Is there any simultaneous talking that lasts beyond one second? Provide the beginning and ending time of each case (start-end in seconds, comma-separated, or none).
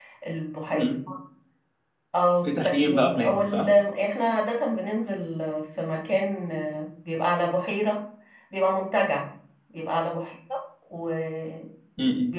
2.4-3.7